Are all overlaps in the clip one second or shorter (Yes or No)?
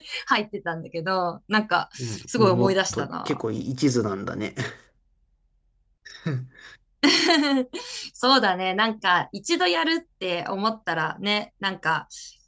No